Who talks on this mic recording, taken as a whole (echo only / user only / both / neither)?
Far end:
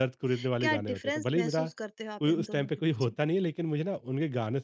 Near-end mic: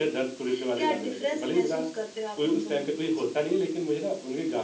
echo only